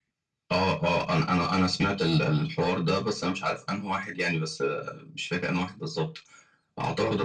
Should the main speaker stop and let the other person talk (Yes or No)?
No